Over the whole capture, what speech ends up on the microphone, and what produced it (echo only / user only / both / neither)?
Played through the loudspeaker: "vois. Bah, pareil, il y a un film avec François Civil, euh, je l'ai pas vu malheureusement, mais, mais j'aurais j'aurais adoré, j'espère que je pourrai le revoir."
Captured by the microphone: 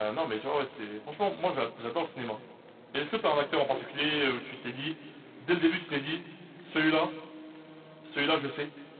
user only